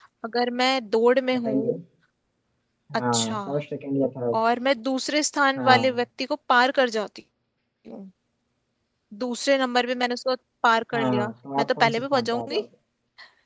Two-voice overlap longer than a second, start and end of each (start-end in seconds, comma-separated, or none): 10.9-12.6